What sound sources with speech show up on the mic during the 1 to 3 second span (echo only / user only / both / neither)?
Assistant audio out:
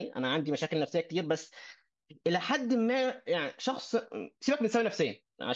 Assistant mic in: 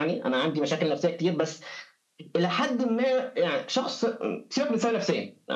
echo only